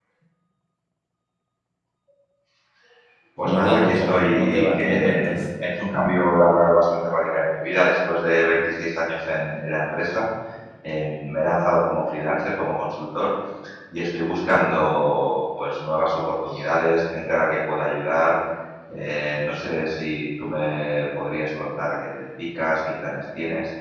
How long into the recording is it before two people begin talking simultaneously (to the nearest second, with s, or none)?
3 s